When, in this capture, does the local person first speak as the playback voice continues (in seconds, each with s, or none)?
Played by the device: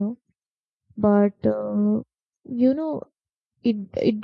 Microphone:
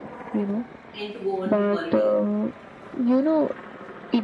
0.9 s